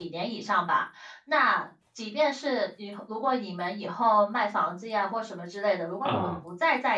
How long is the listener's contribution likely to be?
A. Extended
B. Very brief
B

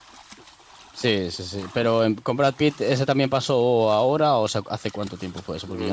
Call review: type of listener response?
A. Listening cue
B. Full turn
B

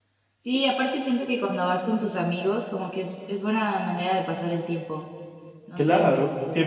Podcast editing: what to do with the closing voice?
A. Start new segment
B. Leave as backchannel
A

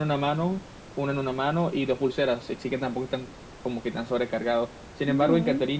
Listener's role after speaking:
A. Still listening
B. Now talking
A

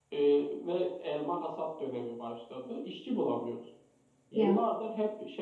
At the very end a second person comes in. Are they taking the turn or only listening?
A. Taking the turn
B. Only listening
B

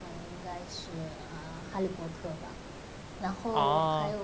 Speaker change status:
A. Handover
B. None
B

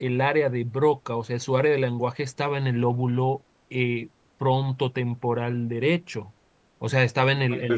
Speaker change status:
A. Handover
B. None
B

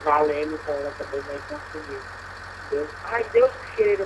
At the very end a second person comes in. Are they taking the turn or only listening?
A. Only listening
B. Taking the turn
B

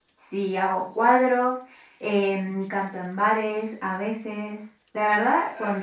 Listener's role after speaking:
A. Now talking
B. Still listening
A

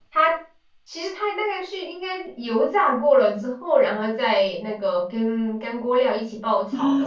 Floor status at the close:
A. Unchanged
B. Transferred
B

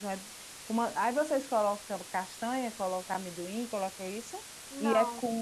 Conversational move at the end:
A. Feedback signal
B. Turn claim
A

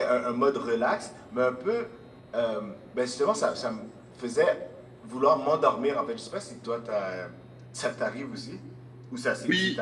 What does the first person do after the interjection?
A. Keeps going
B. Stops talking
B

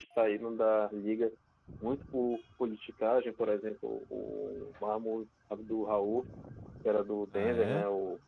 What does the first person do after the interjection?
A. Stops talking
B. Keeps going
B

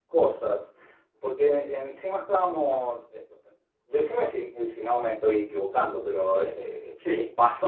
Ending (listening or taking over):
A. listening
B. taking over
A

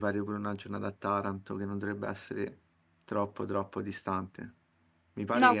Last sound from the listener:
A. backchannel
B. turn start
A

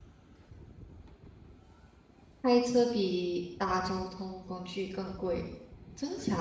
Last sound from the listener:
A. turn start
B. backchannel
A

